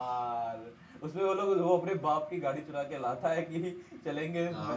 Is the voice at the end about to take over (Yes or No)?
Yes